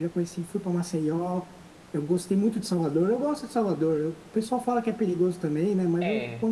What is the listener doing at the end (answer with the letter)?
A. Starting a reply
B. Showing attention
B